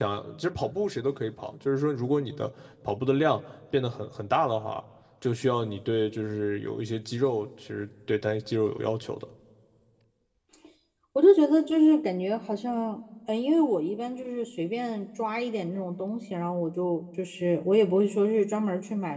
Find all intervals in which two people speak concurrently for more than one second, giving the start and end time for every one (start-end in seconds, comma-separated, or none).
none